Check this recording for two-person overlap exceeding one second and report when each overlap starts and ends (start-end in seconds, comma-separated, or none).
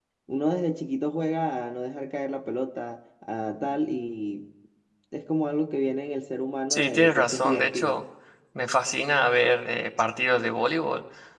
6.7-8.0